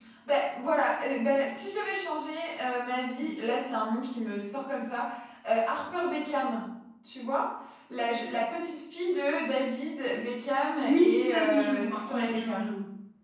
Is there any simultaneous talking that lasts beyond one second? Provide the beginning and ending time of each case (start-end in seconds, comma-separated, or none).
10.8-12.7